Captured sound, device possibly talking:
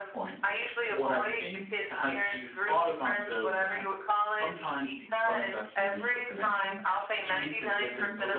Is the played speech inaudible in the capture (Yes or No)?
No